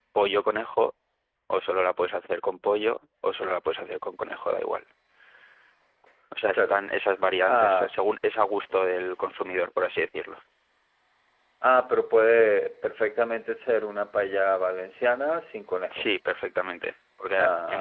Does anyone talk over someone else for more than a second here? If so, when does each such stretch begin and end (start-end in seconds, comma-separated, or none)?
none